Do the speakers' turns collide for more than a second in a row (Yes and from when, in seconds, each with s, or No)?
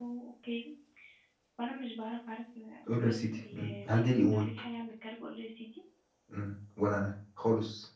Yes, from 2.9 s